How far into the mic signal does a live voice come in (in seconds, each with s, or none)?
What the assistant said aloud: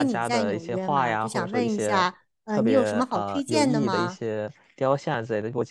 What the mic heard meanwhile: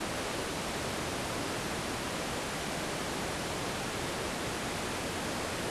none